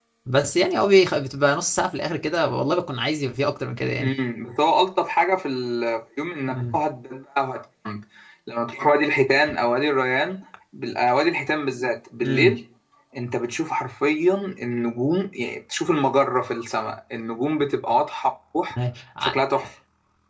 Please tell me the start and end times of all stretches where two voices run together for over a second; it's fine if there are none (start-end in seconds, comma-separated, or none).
none